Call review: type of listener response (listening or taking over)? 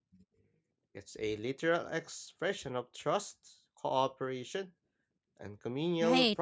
taking over